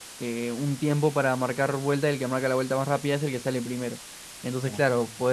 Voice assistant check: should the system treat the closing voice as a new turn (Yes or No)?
No